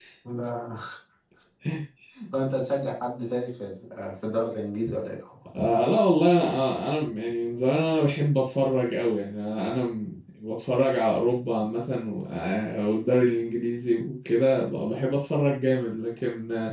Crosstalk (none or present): none